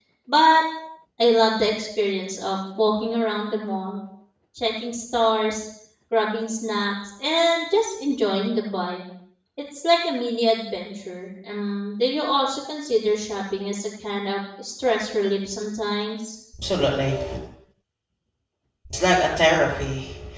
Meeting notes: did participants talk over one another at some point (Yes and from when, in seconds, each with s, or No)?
No